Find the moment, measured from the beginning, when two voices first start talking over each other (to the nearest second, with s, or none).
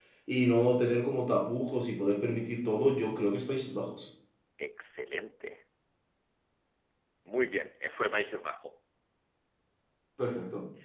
none